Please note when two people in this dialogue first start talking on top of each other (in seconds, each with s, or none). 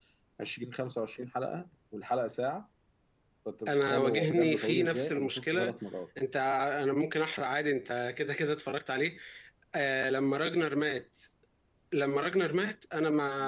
3.7 s